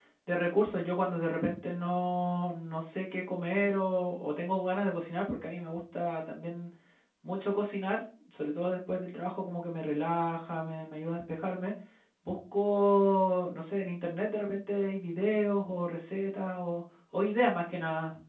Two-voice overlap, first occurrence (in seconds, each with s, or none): none